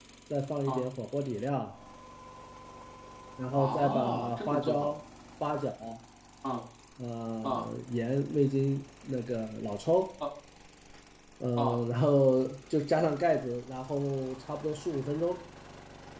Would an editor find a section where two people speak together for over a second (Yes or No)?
Yes